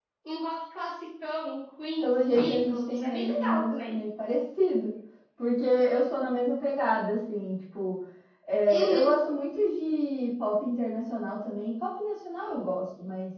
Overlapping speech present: Yes, from 2.0 s

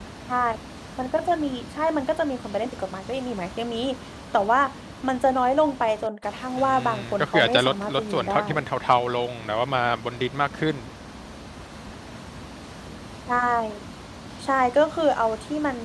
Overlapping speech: Yes, from 6.6 s

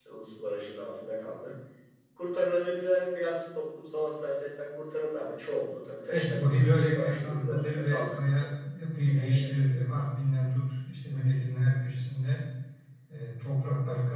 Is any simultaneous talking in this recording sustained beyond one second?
Yes, from 6.1 s

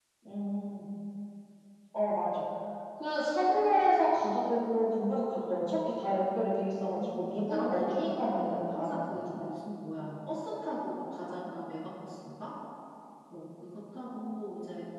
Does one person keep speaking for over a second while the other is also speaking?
Yes, from 6.7 s

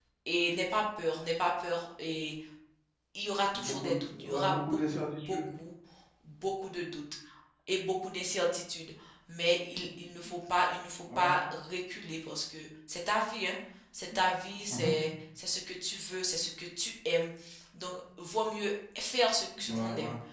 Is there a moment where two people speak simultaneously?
Yes, from 3.5 s

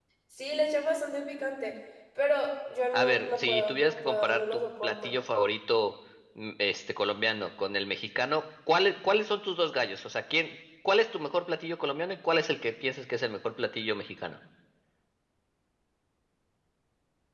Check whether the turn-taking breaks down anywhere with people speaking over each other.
Yes, from 2.9 s

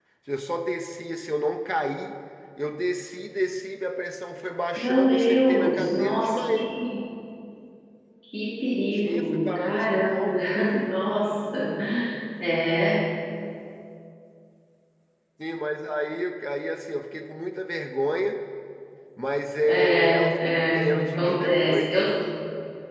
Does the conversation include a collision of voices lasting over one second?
Yes, from 4.8 s

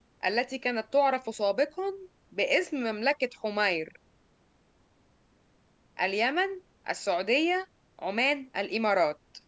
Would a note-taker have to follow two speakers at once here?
No

